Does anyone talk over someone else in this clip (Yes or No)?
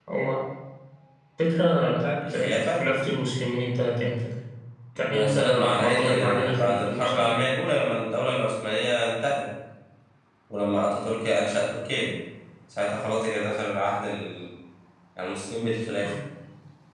Yes